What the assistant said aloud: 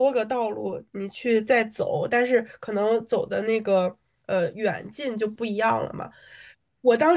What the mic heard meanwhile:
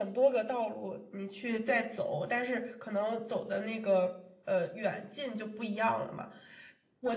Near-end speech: none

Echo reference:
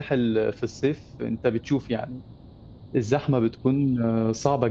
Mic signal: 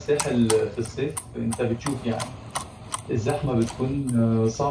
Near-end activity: none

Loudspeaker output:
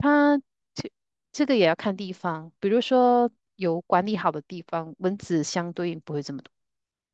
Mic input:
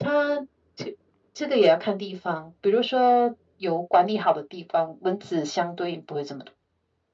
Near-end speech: none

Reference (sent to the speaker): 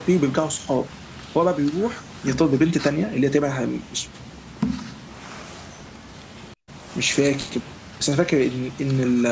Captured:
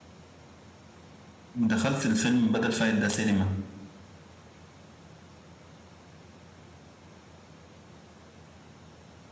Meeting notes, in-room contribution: present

